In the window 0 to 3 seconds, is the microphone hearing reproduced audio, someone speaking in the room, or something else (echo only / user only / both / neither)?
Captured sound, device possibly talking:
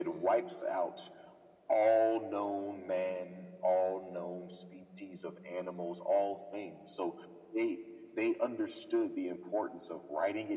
echo only